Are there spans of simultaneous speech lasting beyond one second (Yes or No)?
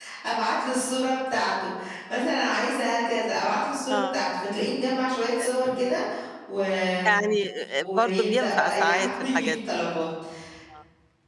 Yes